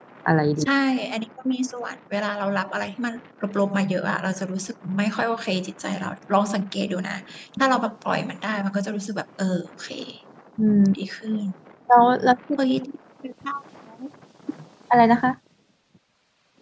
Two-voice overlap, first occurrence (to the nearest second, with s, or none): none